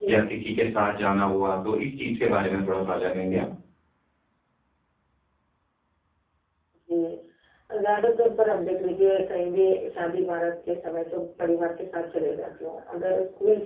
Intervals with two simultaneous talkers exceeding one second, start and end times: none

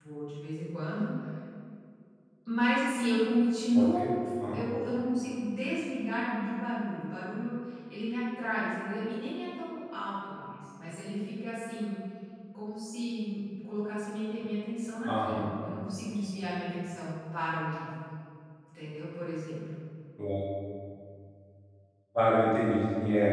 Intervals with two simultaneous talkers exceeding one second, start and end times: none

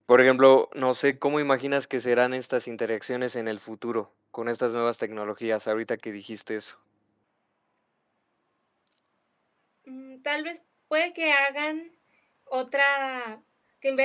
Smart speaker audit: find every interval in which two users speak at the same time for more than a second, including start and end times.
none

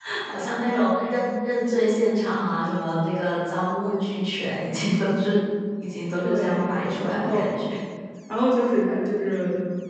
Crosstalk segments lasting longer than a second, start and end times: 6.2-7.5

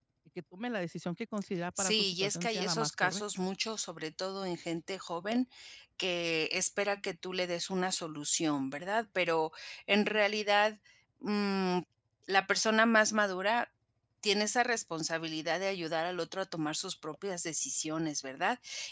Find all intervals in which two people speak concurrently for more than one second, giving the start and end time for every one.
1.8-3.2

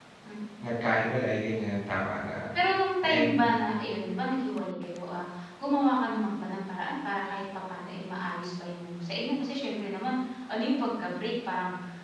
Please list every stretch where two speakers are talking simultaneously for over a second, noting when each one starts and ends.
none

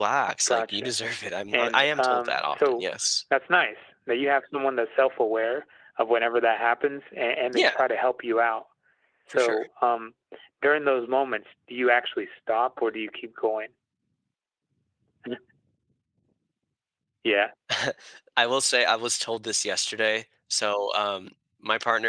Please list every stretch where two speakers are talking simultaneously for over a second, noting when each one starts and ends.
1.5-2.9

